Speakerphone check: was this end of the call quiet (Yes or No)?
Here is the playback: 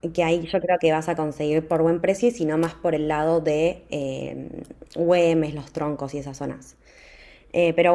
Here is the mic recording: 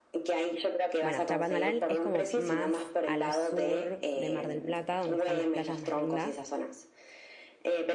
No